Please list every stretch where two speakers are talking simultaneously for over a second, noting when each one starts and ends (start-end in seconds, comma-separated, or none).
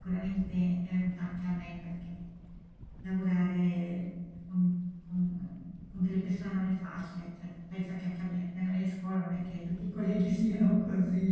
none